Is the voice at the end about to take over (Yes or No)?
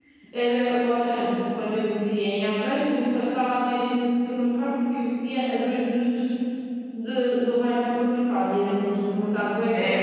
Yes